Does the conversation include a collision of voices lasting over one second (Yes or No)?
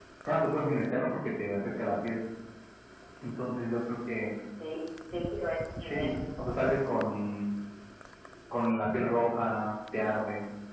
No